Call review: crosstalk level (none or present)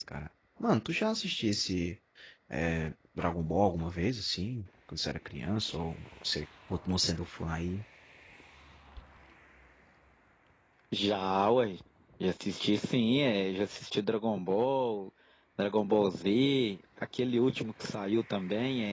none